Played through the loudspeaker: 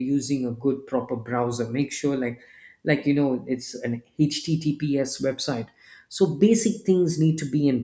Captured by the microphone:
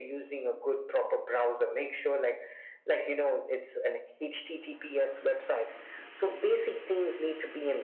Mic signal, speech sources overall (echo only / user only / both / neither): echo only